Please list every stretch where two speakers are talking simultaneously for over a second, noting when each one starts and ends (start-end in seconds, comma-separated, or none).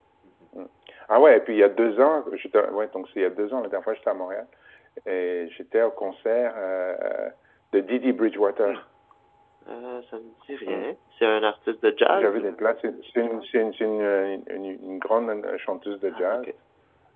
none